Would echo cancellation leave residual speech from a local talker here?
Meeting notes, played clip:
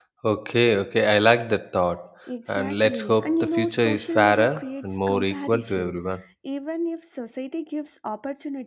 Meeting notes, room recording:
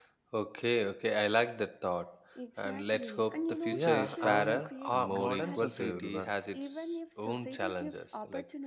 Yes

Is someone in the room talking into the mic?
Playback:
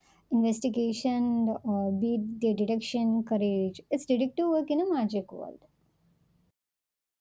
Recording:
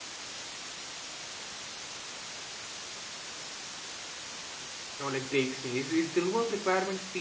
Yes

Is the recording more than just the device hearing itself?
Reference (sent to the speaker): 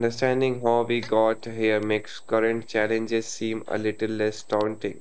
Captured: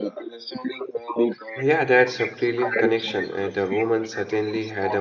Yes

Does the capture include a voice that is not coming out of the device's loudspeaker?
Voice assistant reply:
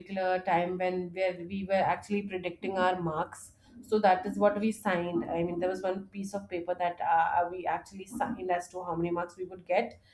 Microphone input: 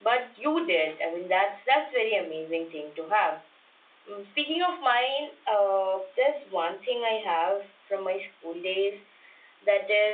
Yes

